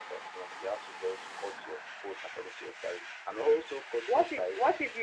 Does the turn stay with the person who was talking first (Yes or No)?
No